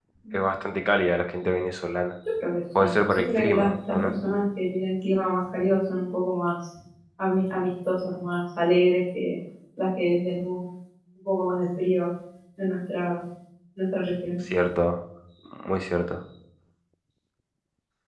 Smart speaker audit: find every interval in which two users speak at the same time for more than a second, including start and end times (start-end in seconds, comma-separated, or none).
2.8-4.1